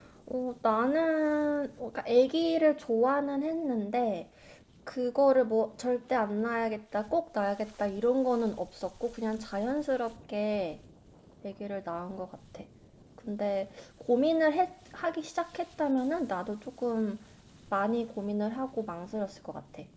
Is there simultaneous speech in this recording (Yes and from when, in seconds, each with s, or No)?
No